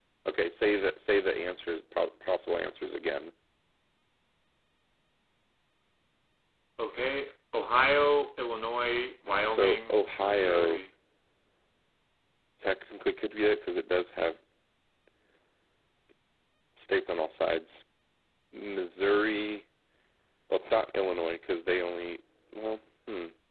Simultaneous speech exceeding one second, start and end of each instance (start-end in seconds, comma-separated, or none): 9.5-10.8